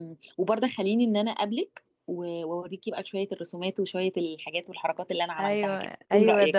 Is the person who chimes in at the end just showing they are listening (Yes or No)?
No